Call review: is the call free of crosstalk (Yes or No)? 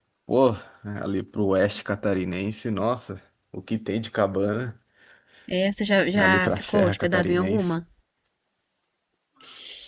No